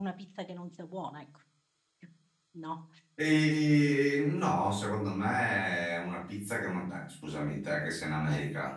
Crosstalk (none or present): none